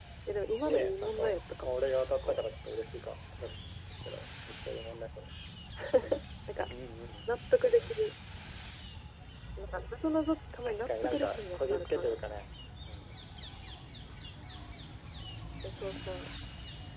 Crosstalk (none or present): present